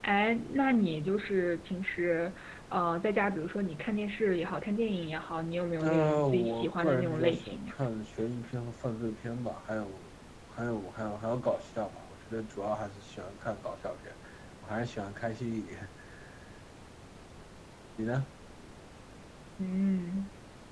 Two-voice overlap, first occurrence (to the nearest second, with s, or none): 6 s